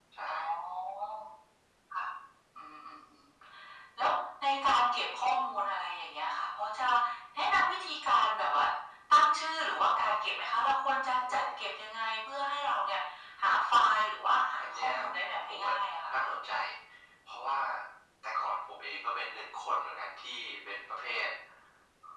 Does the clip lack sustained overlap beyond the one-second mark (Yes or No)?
Yes